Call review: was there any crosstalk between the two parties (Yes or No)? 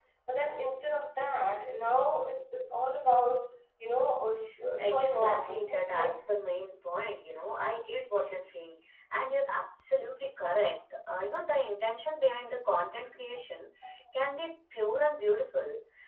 Yes